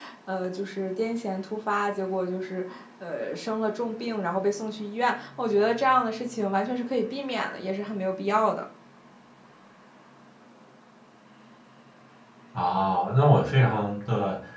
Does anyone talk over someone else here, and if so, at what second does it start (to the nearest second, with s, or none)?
none